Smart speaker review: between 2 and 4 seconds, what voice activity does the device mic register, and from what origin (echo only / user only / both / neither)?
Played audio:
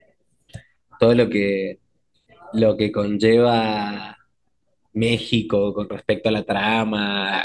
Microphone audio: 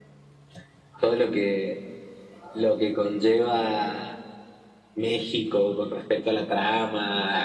echo only